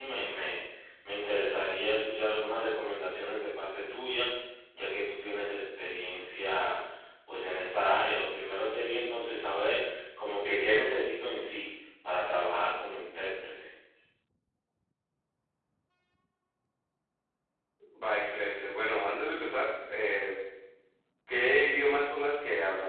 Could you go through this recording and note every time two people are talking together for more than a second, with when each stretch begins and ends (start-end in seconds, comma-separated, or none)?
none